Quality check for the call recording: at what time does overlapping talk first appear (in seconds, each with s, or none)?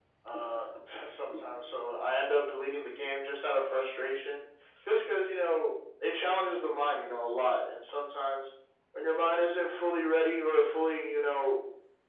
none